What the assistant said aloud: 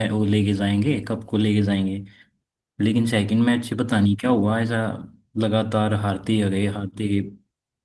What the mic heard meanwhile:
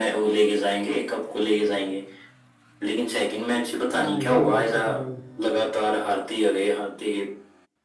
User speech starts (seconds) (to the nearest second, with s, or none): 4 s